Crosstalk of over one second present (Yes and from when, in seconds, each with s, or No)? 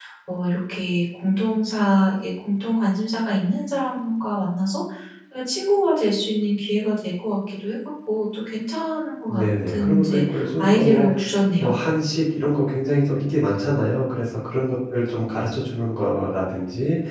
Yes, from 9.3 s